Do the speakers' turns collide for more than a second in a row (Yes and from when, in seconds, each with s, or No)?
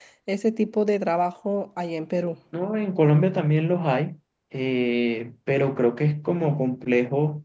No